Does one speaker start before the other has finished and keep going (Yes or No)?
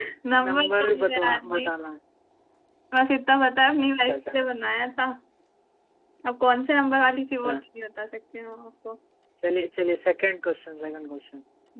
Yes